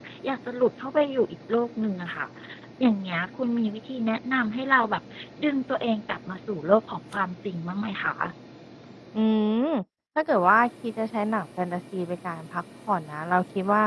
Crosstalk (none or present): none